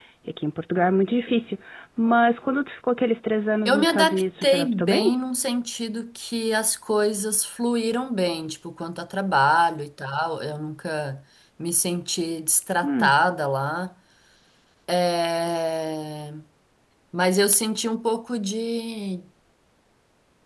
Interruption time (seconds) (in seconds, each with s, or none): 3.6 s